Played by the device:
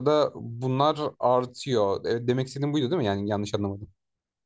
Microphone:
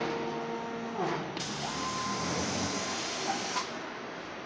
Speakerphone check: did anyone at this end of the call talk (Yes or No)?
No